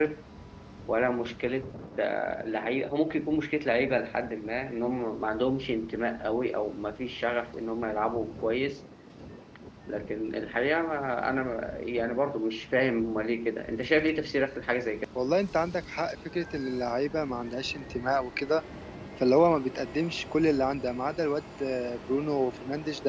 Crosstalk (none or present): none